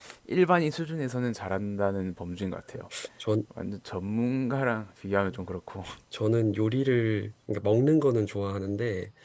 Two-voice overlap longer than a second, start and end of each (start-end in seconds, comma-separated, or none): none